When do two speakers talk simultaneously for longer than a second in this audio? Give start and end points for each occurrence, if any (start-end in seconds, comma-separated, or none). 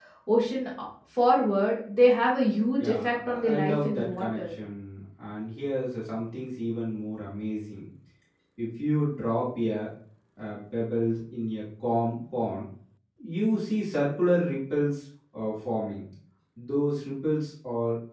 2.8-4.4